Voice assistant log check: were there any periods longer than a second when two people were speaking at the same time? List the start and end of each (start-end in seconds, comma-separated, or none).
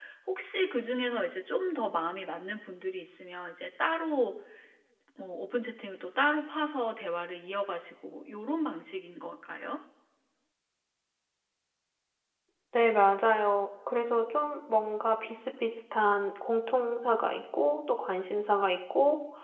none